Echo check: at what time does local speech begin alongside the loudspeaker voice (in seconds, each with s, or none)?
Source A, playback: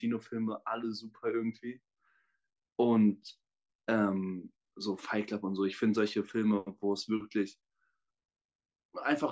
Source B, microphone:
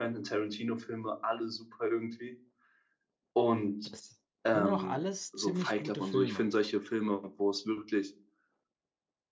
3.8 s